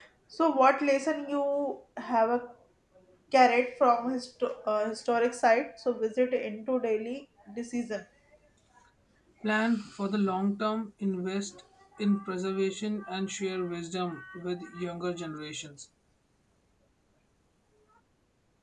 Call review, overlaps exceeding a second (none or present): none